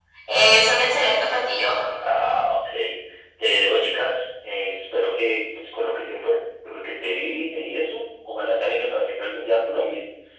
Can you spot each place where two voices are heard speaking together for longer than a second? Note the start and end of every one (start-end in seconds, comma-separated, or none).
none